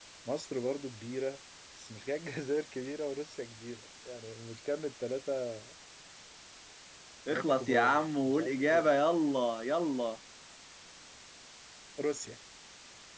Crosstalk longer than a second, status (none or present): present